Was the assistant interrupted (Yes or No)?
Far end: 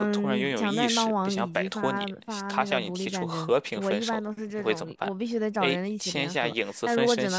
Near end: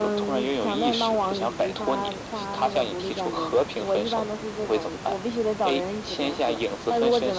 No